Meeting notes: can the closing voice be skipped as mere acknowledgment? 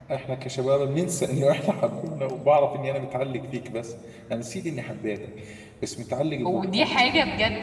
No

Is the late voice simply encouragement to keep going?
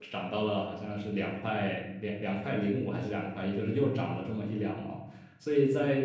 Yes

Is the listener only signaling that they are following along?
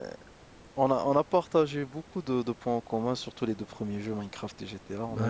No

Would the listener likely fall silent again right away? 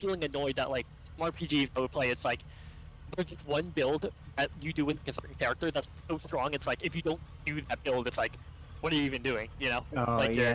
No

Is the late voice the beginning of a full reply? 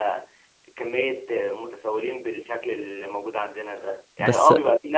No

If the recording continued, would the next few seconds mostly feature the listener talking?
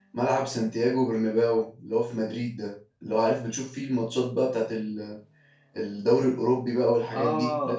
Yes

